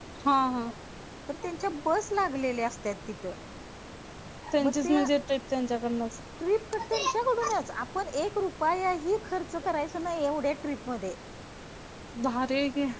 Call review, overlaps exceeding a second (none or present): none